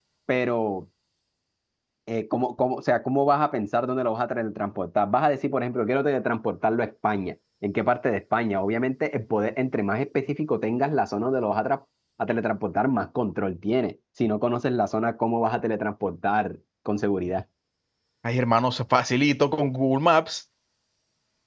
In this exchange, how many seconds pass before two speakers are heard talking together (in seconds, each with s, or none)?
none